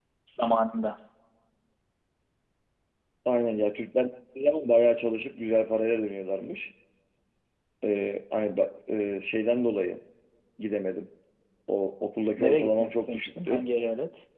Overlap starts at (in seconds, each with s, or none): 12.4 s